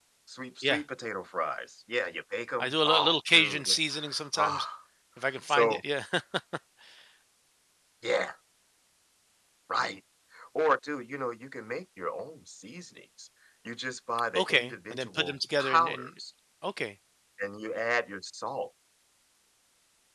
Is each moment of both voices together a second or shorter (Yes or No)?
No